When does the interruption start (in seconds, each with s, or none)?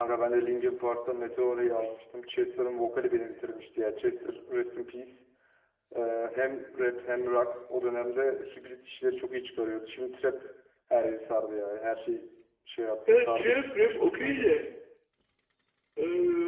13.1 s